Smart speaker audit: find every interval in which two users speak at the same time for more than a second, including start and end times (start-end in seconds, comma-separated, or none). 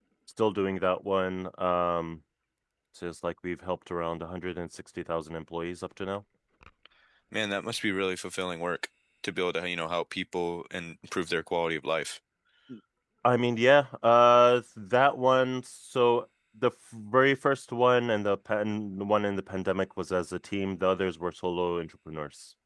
none